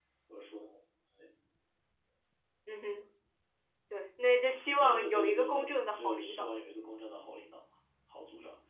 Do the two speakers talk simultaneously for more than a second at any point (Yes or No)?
Yes